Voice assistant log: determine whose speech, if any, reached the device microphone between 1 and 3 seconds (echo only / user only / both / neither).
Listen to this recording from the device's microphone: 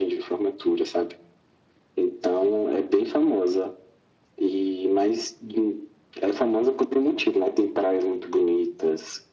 echo only